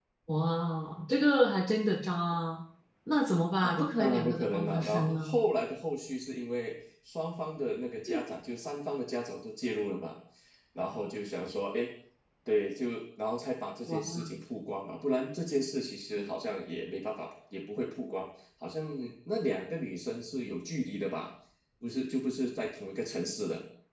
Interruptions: present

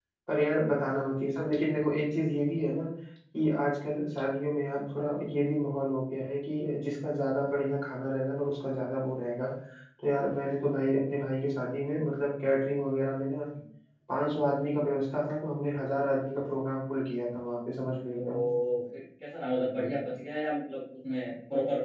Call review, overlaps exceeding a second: none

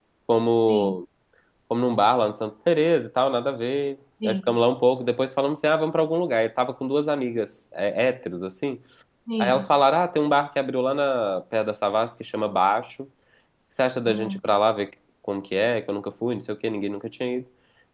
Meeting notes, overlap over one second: none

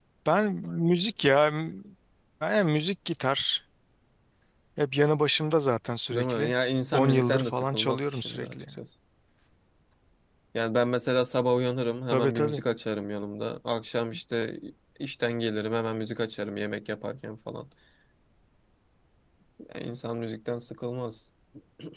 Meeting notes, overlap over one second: present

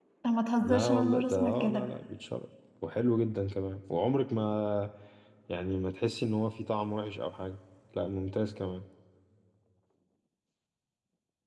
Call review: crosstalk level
present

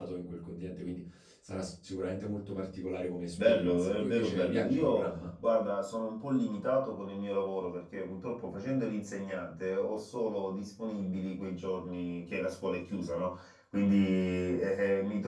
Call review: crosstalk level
present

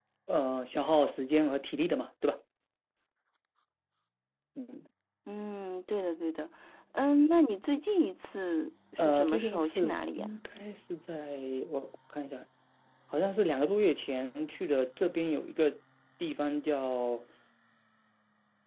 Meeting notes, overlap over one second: present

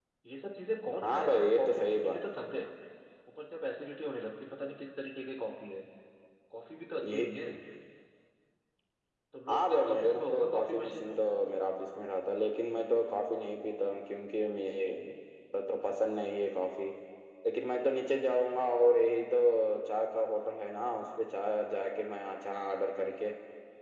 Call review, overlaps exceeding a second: present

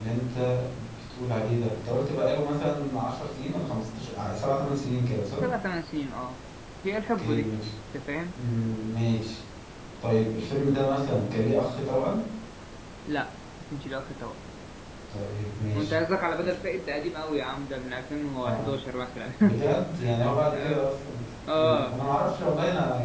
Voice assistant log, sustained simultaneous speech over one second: none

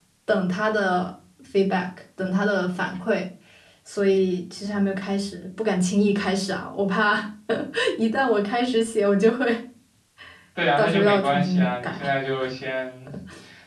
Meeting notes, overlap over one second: present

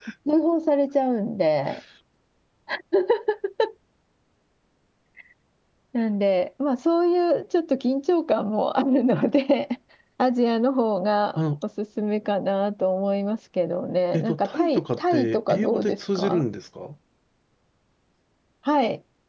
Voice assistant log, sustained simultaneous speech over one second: present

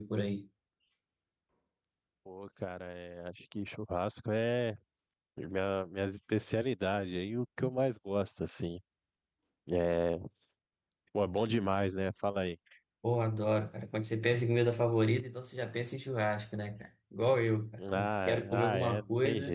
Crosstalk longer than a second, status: present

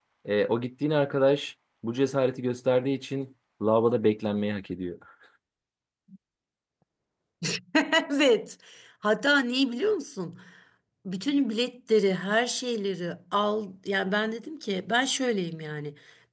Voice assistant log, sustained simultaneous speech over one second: none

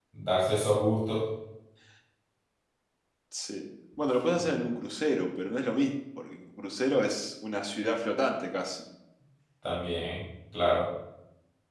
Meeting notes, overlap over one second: none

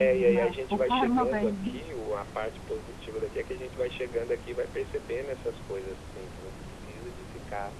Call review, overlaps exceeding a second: present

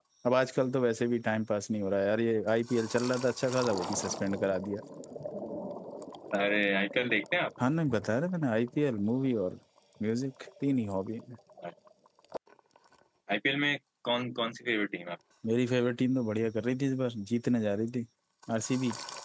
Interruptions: none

